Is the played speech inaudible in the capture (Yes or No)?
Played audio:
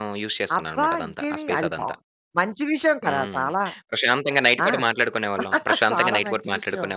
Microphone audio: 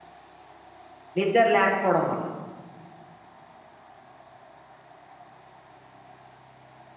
Yes